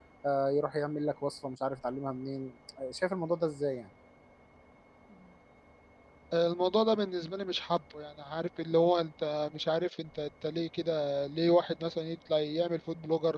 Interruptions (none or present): none